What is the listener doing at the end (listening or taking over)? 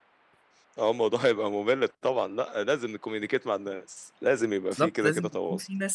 taking over